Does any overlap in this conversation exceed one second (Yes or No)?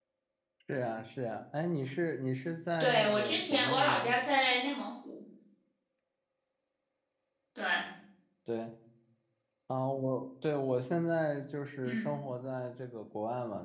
Yes